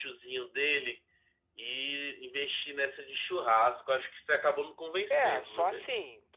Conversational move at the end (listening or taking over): taking over